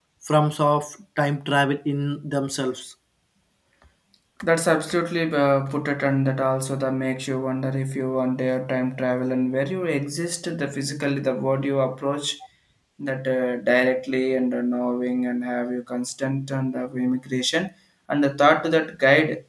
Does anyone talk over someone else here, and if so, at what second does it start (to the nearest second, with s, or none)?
none